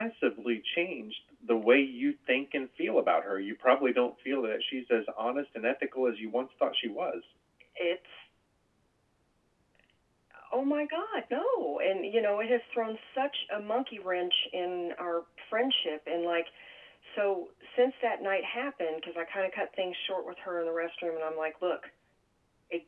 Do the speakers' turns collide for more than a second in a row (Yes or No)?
No